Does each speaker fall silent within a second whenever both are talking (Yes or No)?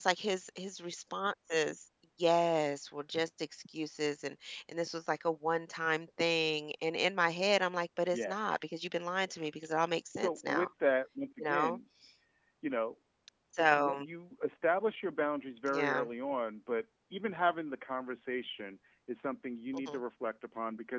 Yes